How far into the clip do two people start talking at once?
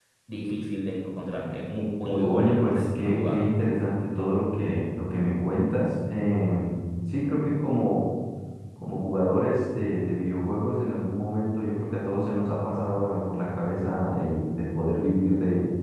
2 s

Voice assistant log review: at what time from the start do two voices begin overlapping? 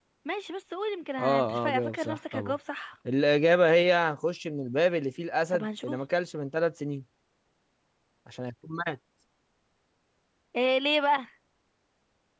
1 s

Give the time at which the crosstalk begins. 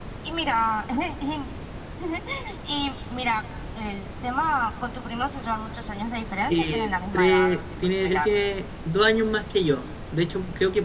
6 s

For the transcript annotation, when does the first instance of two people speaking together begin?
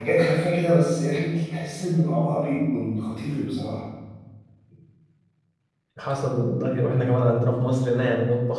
none

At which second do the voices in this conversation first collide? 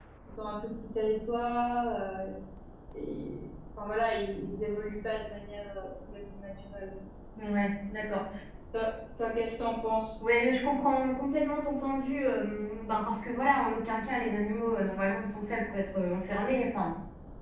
none

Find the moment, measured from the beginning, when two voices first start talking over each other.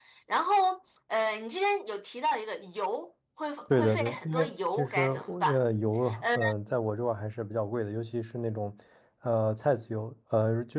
4 s

